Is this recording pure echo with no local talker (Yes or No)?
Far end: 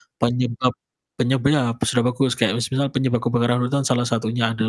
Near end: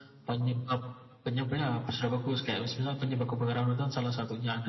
Yes